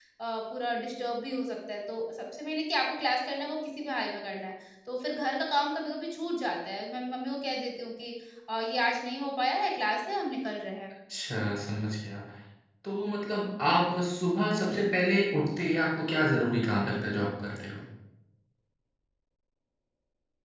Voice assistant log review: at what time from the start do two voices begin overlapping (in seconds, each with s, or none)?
none